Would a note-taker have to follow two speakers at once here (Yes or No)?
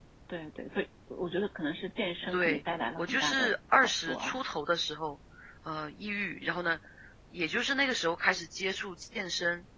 Yes